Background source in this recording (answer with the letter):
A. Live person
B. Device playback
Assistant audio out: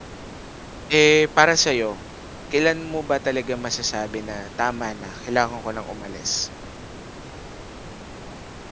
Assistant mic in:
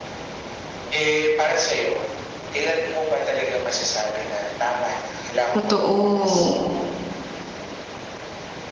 B